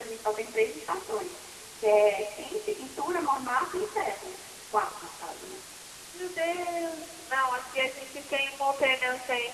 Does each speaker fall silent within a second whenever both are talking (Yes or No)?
Yes